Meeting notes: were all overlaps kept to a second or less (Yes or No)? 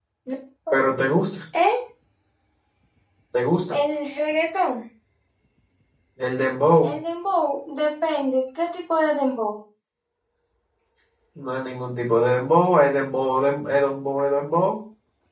Yes